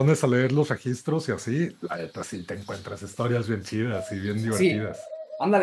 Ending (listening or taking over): taking over